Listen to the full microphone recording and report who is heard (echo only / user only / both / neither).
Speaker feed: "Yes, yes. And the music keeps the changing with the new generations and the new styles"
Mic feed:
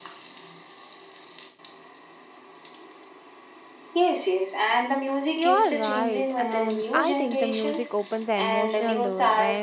both